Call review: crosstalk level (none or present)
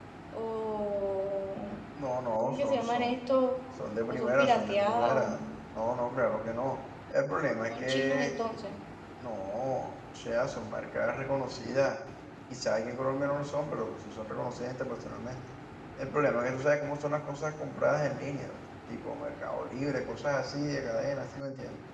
present